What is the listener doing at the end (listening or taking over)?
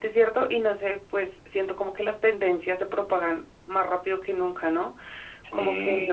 listening